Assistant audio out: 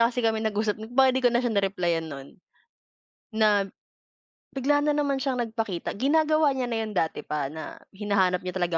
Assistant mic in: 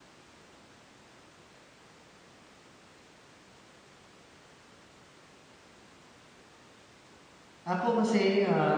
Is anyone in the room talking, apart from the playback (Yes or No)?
Yes